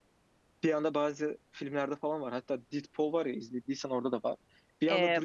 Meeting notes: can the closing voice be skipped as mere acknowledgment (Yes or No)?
Yes